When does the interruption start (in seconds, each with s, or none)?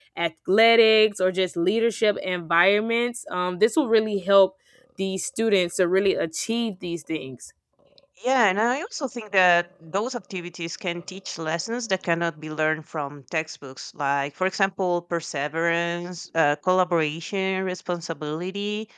none